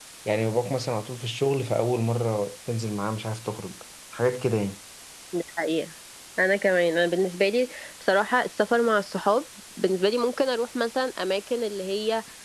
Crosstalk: none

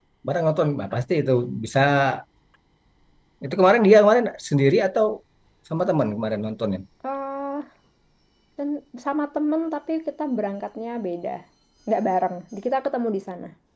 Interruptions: none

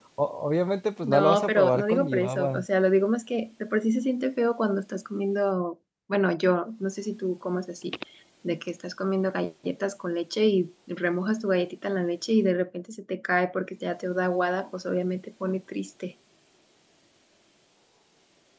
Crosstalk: present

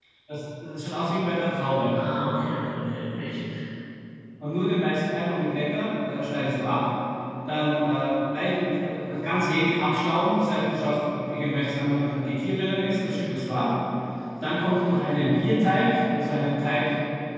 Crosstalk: none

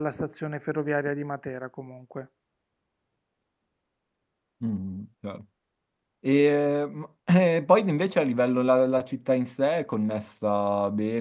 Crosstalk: none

